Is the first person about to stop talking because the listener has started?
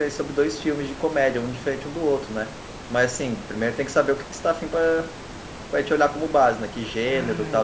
Yes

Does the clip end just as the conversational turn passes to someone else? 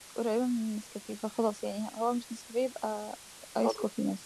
Yes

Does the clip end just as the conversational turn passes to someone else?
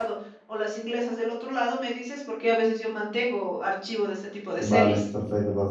Yes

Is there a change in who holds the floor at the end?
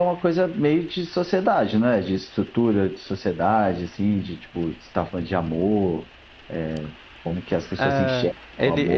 Yes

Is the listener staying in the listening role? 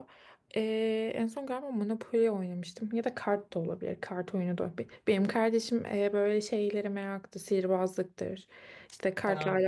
Yes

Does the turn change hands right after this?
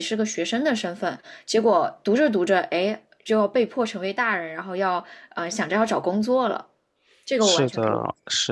Yes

